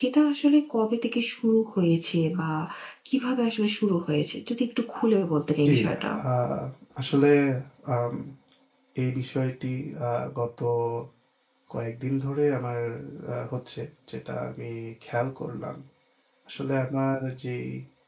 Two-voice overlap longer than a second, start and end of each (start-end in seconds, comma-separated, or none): none